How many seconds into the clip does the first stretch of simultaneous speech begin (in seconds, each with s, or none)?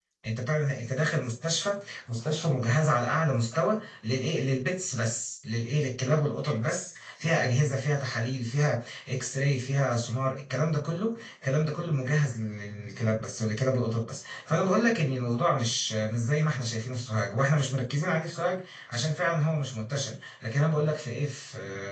none